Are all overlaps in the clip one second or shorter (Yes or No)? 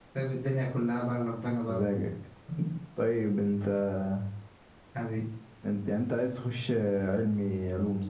Yes